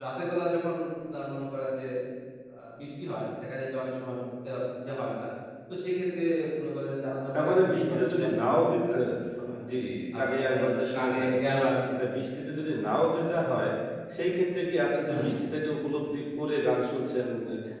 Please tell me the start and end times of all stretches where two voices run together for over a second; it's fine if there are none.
7.5-9.0

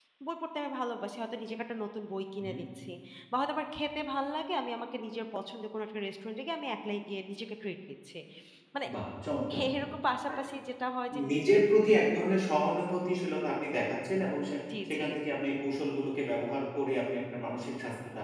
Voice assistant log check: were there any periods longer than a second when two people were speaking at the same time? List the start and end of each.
none

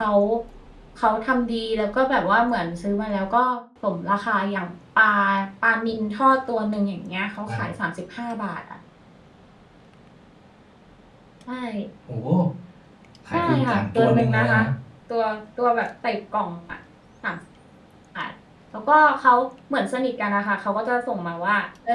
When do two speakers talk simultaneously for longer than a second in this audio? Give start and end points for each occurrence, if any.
13.3-14.6

